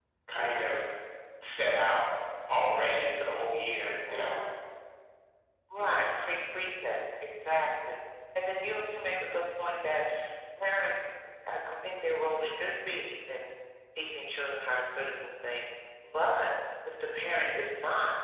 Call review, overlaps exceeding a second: none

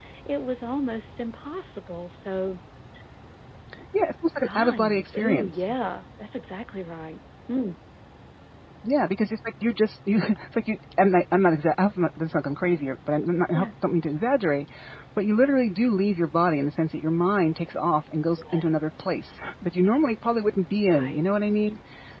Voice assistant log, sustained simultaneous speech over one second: present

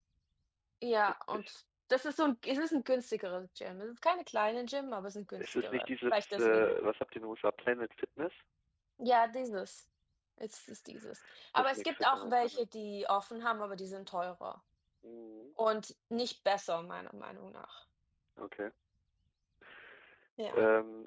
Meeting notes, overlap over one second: present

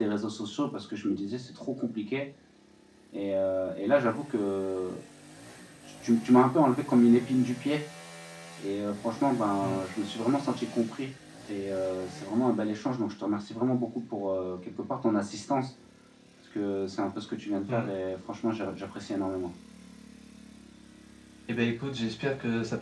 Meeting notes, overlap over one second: none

